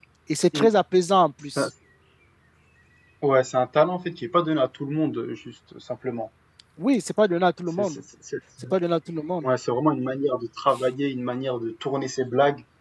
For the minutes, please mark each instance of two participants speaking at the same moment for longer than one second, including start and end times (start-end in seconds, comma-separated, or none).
none